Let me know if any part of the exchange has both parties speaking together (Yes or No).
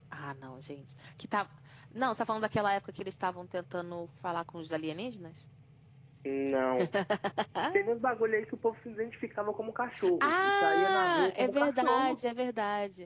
Yes